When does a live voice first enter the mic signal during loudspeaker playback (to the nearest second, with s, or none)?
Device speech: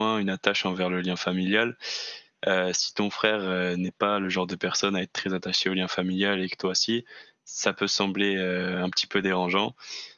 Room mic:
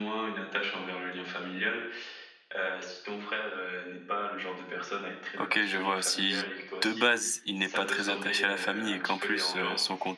5 s